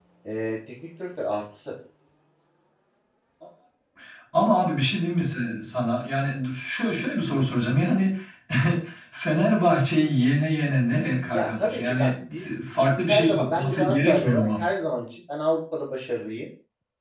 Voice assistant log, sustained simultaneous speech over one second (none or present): present